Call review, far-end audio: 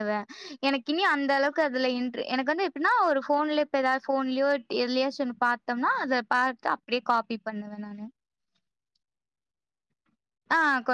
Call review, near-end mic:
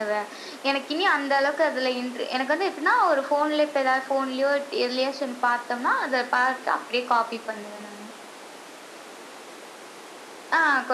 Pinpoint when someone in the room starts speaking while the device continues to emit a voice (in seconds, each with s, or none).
none